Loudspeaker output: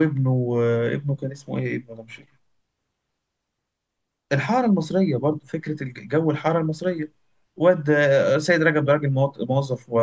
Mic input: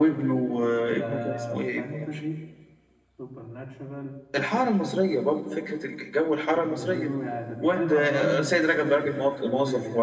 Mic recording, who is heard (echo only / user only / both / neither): both